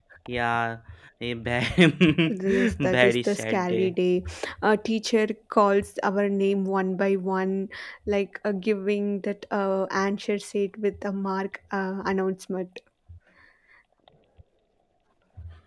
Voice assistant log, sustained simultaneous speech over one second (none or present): present